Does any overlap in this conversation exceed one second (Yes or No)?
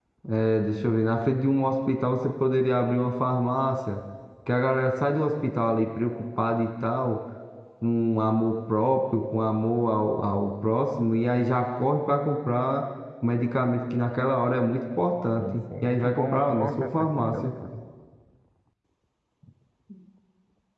Yes